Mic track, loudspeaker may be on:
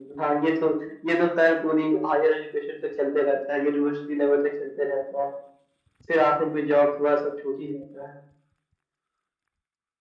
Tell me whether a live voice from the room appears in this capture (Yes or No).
No